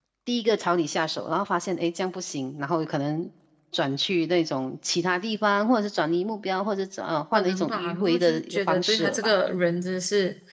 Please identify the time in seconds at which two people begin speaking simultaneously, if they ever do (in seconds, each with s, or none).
7.3 s